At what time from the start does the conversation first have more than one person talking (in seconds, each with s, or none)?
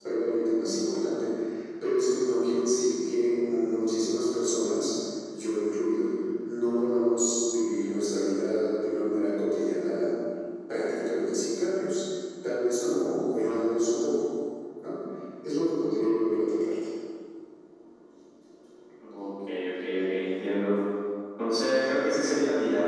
none